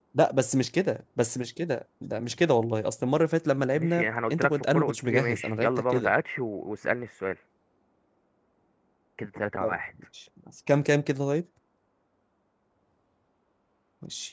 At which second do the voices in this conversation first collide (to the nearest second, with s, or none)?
4 s